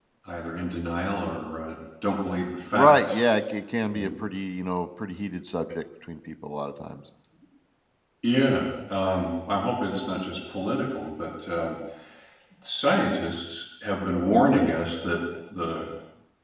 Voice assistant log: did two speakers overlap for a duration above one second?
No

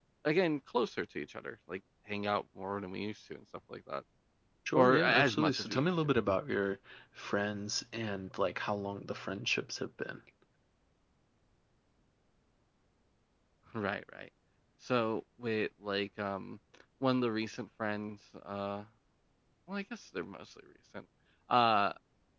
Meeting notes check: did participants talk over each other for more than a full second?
Yes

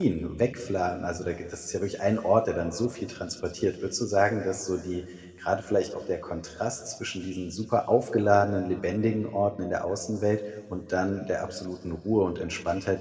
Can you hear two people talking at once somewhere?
No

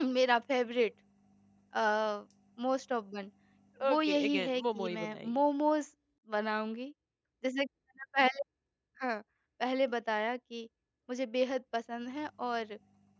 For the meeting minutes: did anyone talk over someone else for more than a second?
Yes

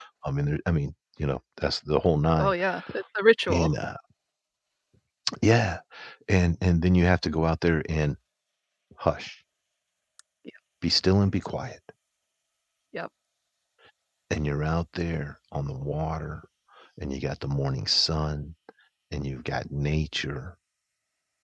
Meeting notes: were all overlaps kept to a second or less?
Yes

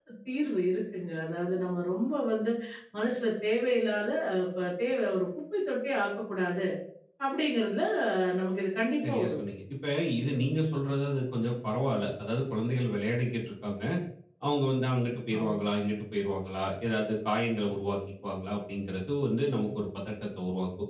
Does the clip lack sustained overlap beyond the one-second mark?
Yes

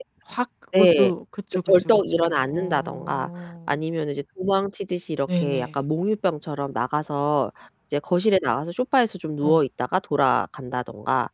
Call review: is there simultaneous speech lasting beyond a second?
Yes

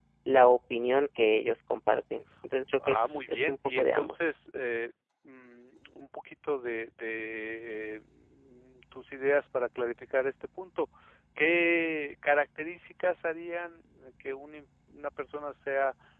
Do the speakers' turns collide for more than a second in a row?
Yes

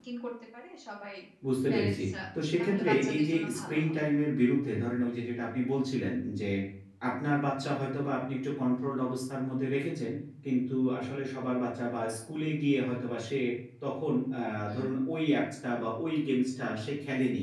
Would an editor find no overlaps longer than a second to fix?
No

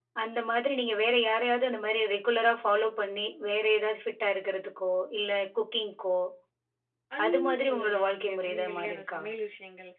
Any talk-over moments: Yes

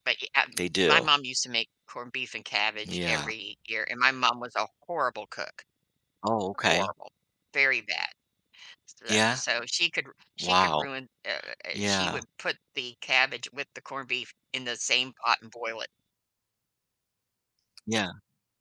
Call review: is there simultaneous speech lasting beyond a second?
No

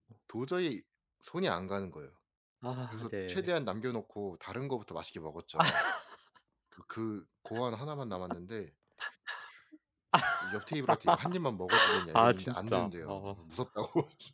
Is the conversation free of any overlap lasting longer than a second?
No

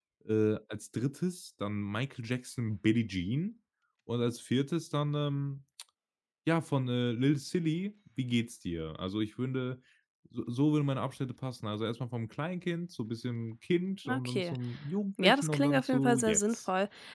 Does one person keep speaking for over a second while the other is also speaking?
Yes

